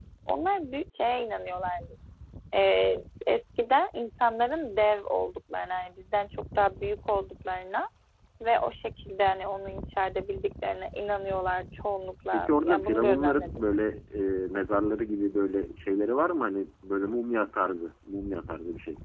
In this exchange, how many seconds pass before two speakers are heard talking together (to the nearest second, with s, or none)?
12 s